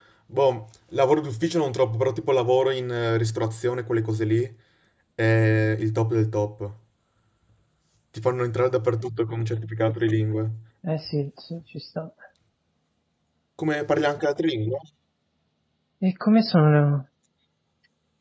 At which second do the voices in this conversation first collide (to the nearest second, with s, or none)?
none